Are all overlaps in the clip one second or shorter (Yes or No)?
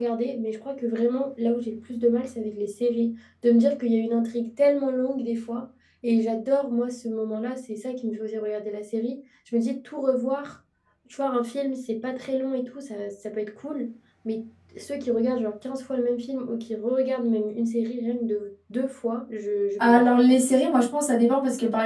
Yes